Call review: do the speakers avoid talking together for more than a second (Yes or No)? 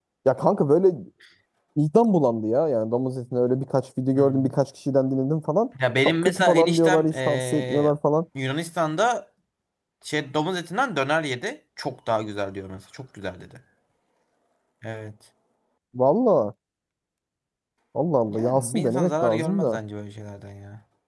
No